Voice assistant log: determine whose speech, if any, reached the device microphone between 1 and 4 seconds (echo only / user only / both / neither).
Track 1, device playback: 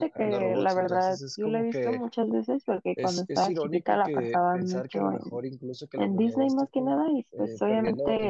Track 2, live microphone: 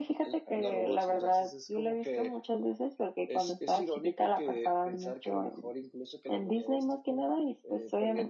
echo only